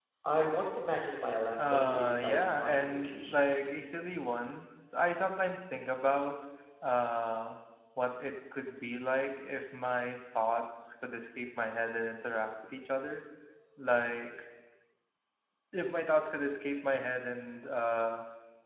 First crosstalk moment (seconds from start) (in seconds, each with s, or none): 1.6 s